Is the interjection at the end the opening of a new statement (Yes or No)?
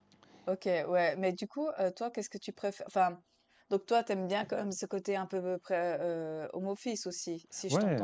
Yes